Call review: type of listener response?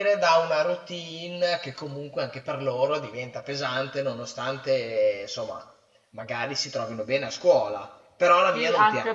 taking over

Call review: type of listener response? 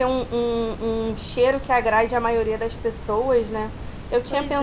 listening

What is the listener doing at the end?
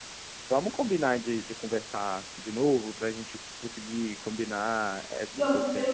taking over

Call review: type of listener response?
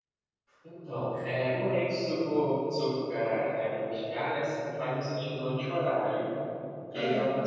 listening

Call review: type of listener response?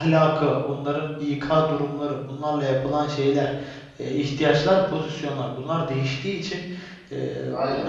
listening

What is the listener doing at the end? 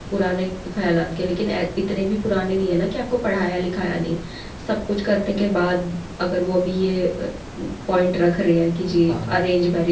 listening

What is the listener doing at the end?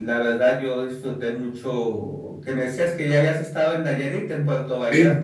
taking over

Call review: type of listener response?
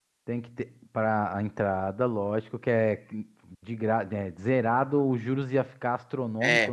taking over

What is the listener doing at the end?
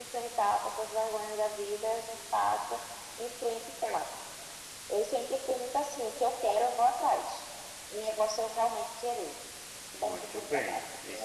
taking over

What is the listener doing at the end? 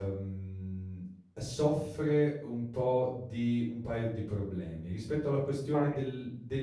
listening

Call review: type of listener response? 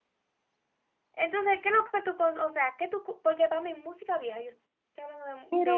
listening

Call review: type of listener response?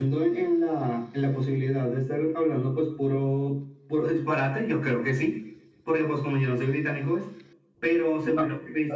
listening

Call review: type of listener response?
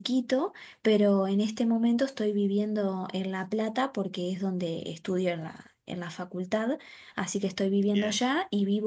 listening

